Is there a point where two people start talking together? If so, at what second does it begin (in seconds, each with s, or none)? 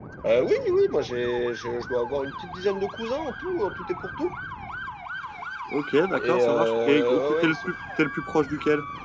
6.1 s